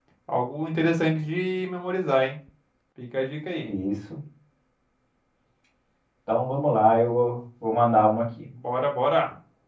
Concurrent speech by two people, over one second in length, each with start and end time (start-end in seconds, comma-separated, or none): none